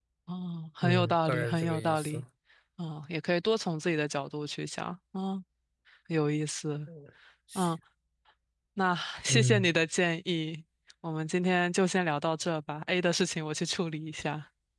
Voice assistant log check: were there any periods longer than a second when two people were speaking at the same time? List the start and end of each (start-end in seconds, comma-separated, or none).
0.8-2.2